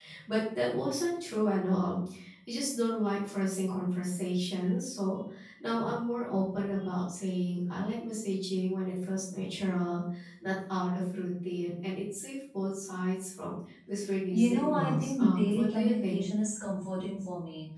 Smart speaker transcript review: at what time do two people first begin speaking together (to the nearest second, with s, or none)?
14 s